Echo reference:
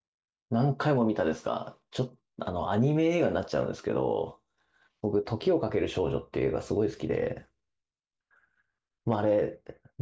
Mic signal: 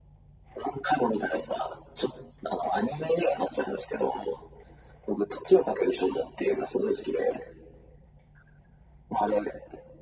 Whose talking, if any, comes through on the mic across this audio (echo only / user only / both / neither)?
echo only